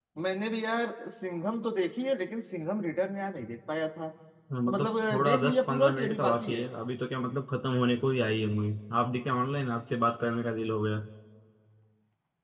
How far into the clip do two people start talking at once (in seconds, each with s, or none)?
4.5 s